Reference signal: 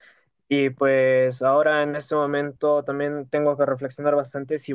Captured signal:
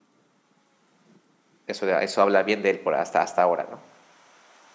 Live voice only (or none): eso, eso habla bien de él por hasta, hasta ahora, ¿no?